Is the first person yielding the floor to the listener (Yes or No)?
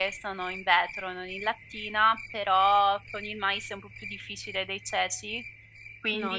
No